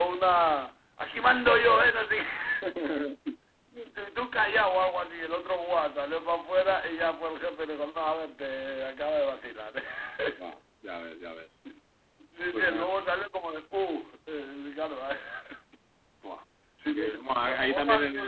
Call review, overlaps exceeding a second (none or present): present